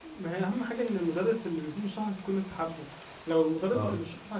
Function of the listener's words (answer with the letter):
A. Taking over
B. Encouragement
B